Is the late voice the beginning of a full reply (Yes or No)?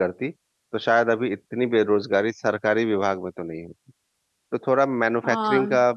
Yes